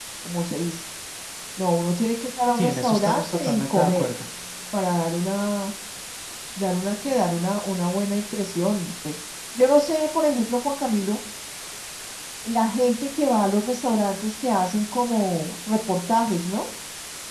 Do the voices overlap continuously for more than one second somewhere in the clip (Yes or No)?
Yes